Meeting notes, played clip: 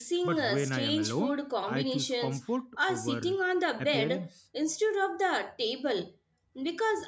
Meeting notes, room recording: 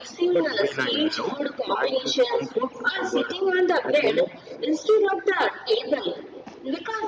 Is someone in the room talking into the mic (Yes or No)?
No